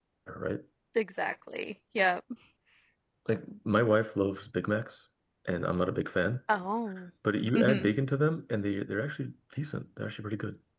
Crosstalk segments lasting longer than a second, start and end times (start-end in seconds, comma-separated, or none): none